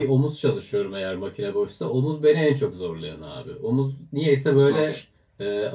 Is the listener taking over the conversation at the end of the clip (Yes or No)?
No